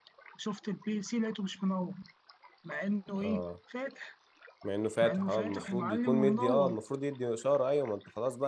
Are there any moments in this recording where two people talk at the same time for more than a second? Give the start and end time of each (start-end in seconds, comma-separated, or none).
5.0-6.8